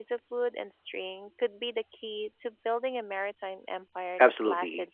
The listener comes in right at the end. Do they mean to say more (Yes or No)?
Yes